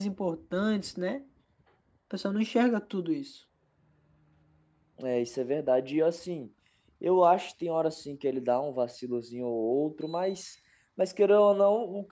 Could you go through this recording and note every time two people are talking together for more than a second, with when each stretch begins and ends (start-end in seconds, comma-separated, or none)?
none